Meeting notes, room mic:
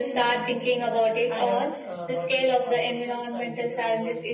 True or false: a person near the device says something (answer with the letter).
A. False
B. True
B